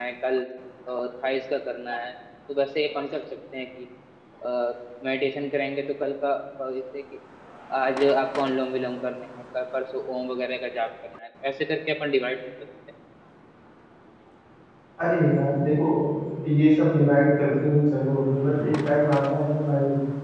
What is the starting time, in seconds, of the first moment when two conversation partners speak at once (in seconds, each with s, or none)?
none